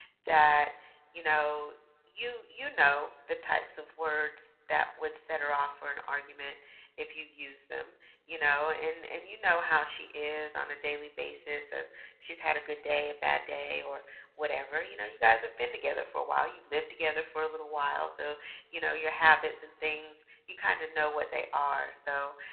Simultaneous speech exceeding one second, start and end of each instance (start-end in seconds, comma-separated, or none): none